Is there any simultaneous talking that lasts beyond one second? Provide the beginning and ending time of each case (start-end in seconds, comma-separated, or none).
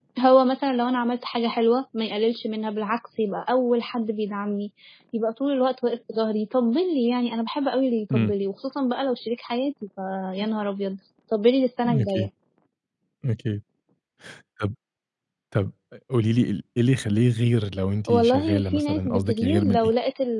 18.1-19.8